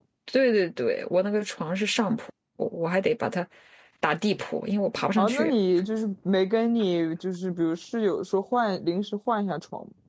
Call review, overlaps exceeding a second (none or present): none